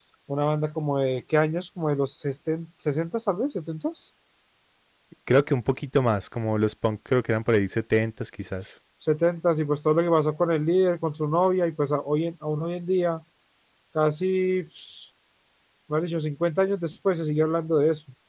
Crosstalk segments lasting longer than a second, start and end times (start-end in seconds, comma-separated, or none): none